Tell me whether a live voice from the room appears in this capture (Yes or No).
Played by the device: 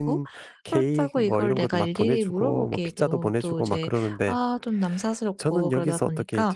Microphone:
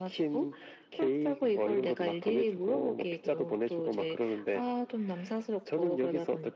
No